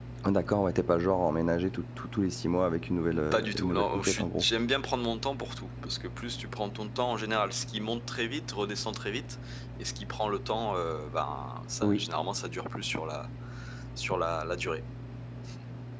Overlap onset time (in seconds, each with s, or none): 3.1 s